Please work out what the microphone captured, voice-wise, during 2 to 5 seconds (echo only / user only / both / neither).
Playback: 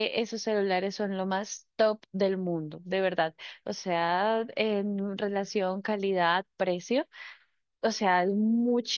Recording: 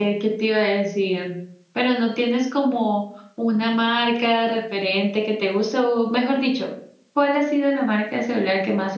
user only